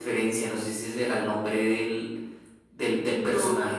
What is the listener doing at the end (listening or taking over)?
listening